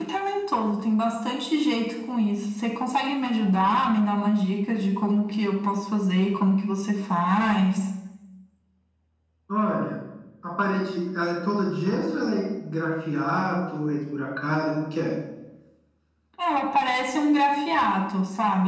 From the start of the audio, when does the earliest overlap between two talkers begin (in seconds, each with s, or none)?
none